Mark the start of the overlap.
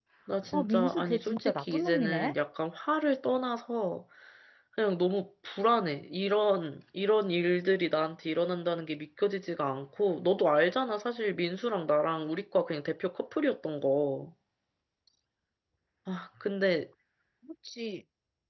0.5 s

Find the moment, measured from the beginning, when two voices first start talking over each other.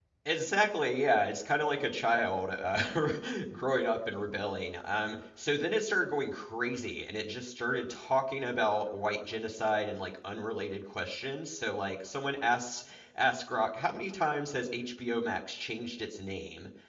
none

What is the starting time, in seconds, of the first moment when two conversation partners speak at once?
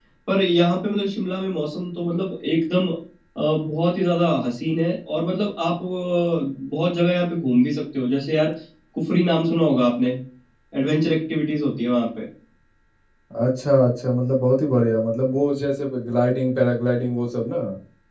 none

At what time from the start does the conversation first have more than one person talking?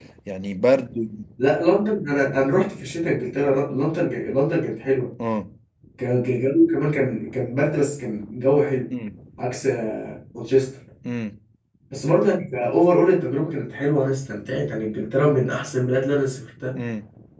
none

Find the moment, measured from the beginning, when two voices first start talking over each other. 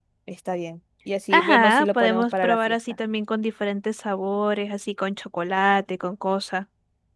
1.3 s

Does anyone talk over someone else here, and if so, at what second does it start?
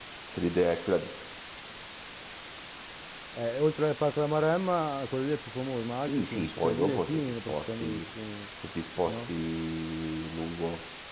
6.0 s

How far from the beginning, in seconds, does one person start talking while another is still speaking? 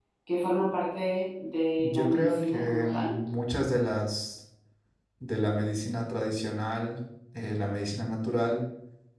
1.8 s

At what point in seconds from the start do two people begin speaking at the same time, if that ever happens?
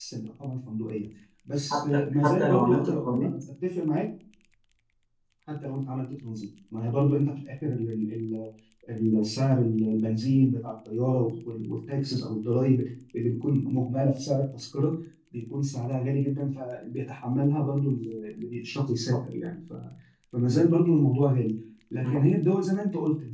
1.7 s

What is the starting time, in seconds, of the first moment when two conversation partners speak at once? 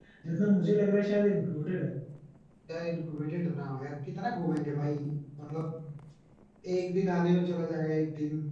none

